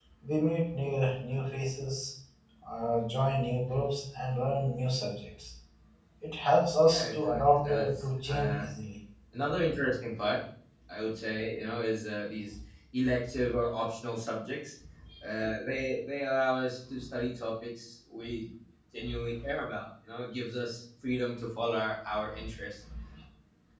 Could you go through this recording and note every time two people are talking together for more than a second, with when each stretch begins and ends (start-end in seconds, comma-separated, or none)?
6.8-8.7